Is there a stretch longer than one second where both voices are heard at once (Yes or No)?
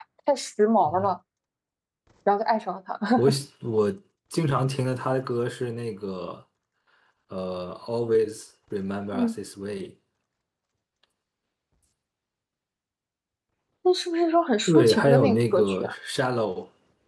Yes